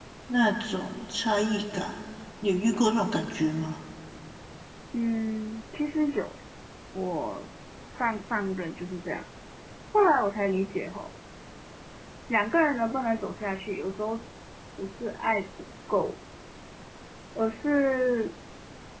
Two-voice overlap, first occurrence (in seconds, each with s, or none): none